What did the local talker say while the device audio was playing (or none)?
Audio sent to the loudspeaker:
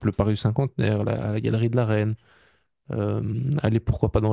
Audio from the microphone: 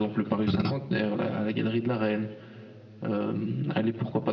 Mhm.